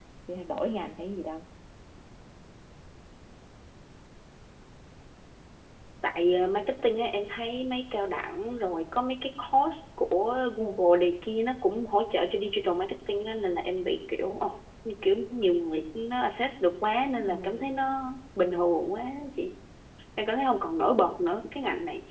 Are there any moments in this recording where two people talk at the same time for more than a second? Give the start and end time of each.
none

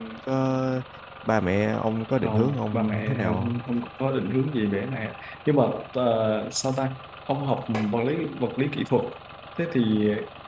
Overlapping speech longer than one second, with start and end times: 2.2-3.6

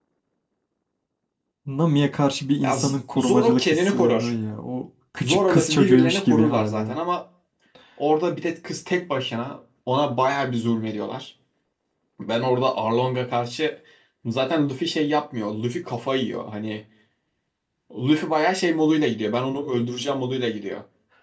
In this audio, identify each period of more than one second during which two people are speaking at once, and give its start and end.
2.6-4.3, 5.2-7.0

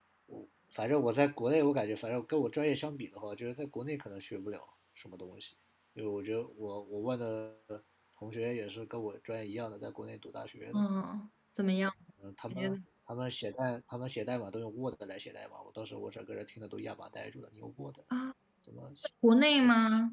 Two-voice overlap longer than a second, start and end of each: none

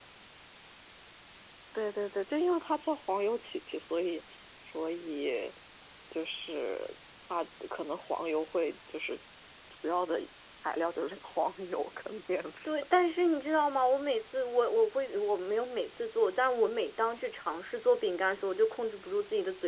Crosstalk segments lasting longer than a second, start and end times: none

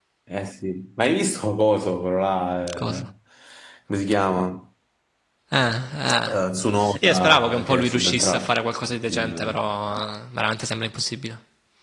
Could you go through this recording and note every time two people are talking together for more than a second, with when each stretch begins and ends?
7.0-8.6

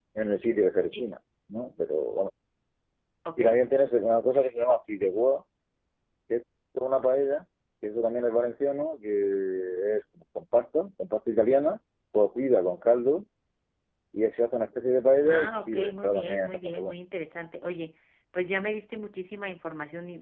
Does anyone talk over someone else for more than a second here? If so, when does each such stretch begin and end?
15.2-17.0

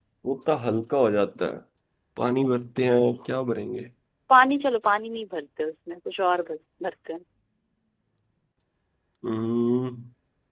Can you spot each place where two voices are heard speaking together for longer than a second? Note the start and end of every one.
none

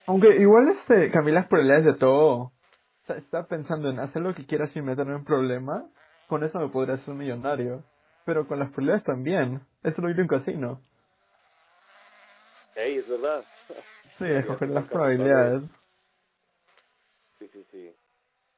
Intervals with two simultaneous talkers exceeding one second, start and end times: 14.3-15.6

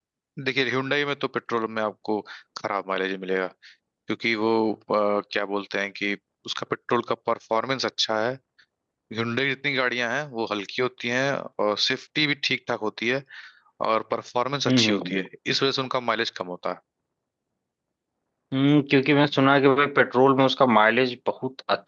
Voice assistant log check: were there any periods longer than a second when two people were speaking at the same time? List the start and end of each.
none

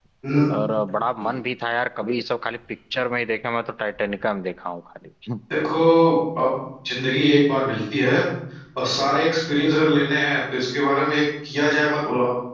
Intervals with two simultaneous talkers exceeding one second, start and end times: none

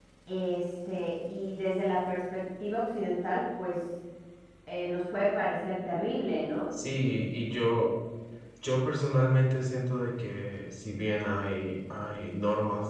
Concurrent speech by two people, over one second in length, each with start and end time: none

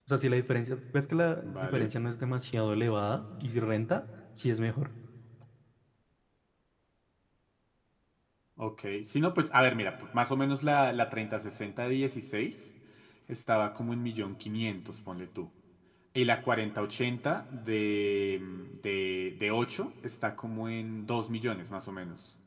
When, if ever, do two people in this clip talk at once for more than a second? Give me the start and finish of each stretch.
none

